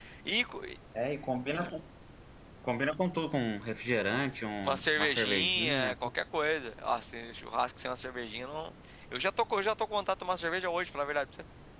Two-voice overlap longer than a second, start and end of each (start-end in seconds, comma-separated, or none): 4.6-5.9